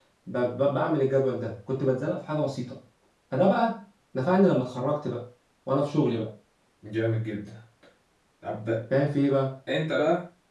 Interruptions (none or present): none